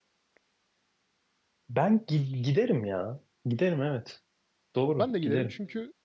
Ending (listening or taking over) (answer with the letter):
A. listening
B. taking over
B